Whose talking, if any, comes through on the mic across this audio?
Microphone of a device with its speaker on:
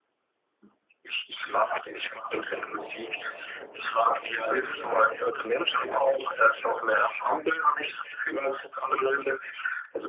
both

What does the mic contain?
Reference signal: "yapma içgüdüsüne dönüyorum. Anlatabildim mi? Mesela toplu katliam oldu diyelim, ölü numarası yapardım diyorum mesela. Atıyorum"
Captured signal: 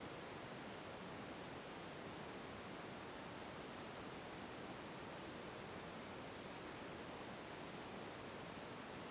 neither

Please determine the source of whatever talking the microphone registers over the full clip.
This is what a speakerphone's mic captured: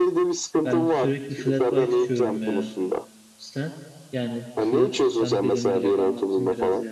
both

